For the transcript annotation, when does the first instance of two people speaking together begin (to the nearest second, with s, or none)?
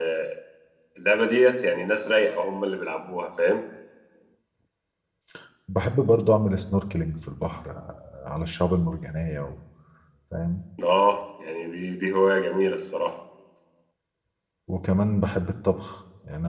none